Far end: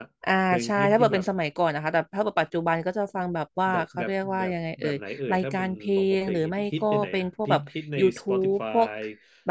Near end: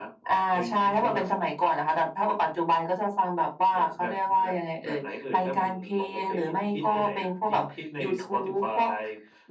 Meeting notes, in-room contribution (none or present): none